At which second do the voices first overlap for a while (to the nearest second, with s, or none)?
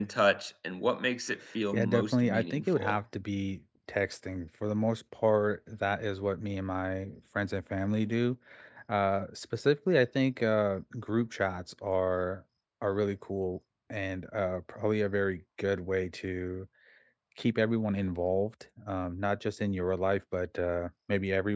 2 s